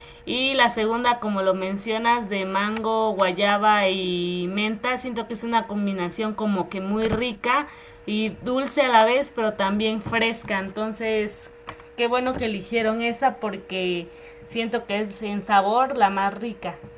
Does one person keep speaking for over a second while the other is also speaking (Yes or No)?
No